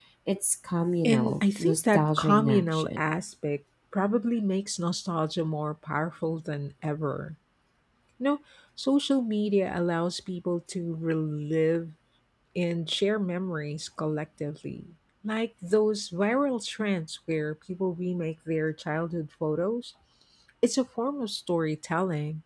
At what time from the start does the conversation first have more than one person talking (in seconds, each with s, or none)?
1.0 s